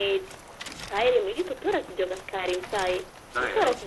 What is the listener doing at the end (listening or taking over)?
listening